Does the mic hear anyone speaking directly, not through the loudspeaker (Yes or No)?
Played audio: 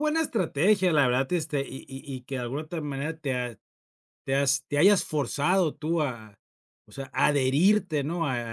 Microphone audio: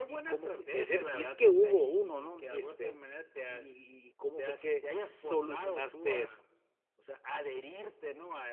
Yes